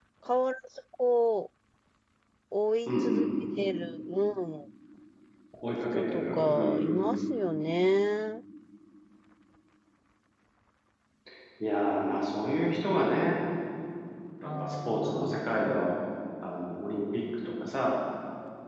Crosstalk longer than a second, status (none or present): present